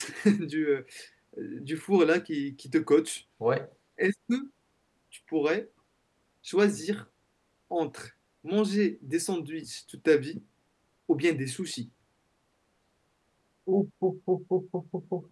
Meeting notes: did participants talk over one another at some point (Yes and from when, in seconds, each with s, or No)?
No